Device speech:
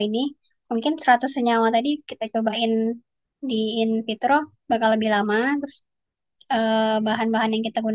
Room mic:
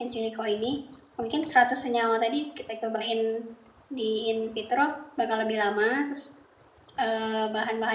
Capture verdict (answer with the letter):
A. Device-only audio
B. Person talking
A